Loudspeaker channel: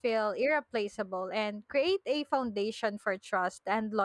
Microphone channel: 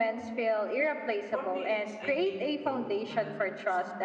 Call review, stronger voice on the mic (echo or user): echo